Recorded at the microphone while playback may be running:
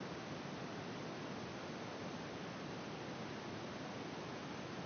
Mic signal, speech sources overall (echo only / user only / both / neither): neither